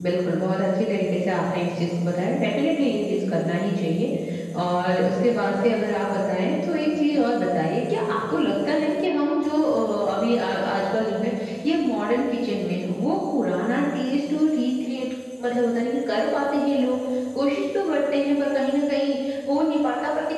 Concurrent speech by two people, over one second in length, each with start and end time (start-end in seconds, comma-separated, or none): none